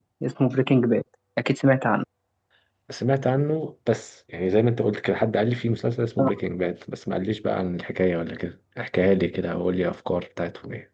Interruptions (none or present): none